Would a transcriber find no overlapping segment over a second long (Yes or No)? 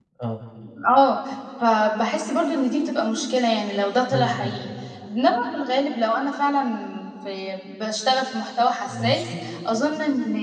Yes